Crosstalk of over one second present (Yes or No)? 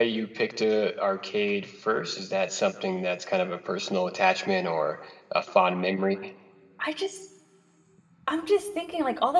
No